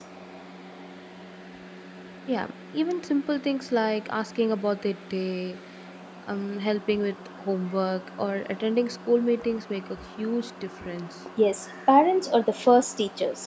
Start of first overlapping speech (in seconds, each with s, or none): none